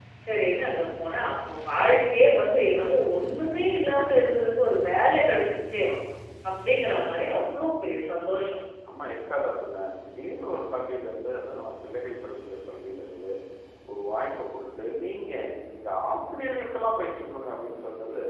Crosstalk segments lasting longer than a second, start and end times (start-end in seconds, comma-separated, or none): none